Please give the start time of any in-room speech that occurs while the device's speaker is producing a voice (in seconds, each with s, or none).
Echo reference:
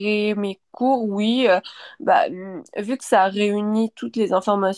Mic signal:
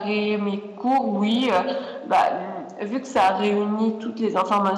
none